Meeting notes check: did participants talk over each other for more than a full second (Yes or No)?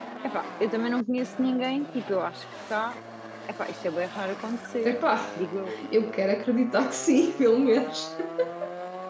No